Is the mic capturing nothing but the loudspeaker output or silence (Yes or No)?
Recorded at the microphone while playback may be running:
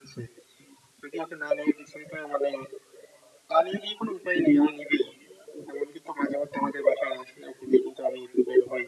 Yes